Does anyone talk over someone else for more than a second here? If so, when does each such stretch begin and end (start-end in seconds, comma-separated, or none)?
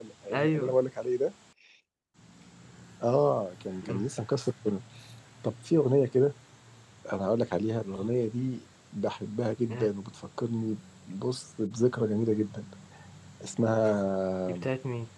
none